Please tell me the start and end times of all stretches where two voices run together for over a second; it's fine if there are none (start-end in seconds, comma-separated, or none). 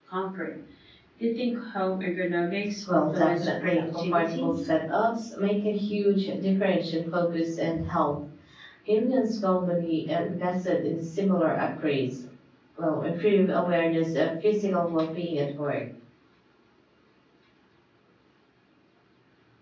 2.9-4.5